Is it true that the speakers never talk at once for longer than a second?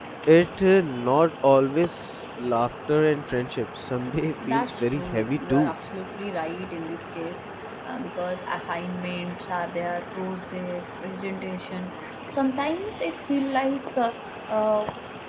No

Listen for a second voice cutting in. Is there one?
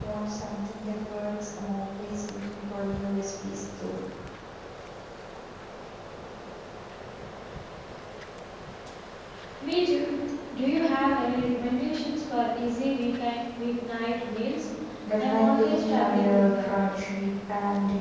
Yes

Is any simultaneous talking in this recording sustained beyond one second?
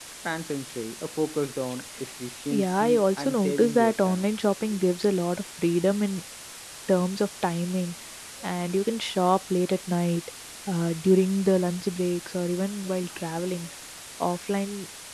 Yes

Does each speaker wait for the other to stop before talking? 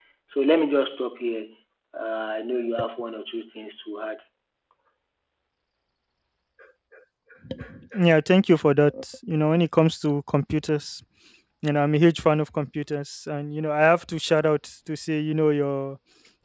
Yes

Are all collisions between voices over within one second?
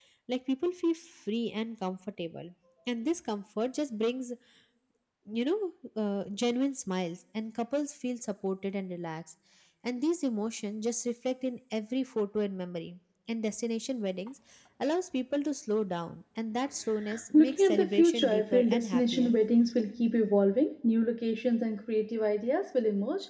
No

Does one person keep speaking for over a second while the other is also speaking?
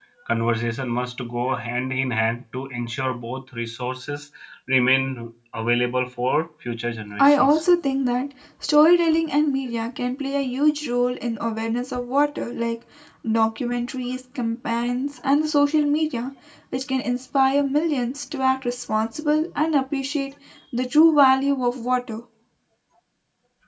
No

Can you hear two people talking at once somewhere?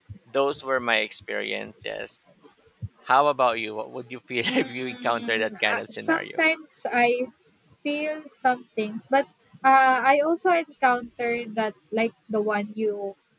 Yes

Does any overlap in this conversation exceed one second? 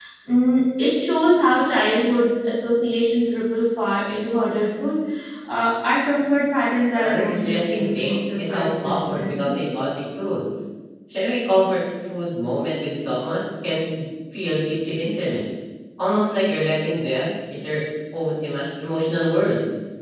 Yes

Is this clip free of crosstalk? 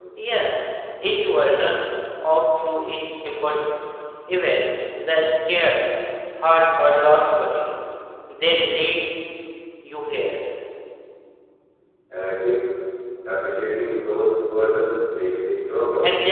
Yes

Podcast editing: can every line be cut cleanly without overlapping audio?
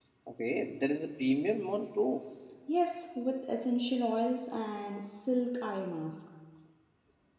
Yes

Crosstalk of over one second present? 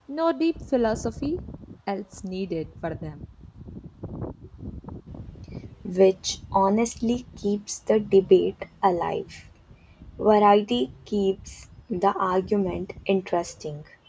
No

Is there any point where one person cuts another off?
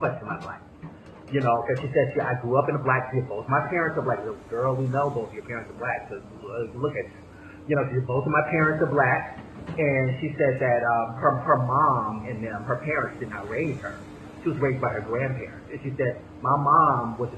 No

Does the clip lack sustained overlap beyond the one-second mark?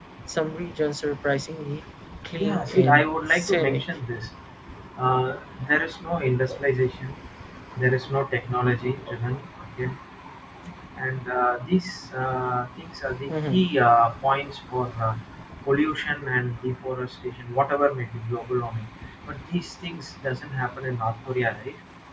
No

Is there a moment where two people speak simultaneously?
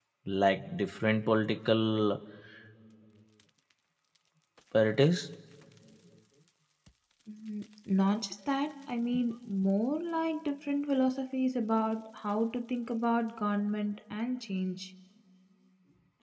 No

